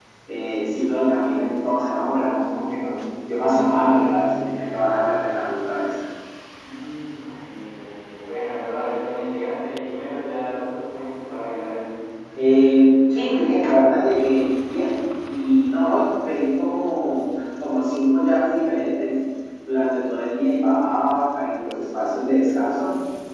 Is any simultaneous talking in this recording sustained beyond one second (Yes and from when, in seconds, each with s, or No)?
No